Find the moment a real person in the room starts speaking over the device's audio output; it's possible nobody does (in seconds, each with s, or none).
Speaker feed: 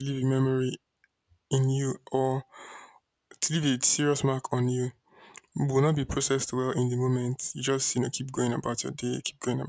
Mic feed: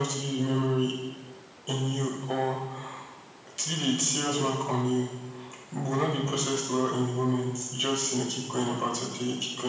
none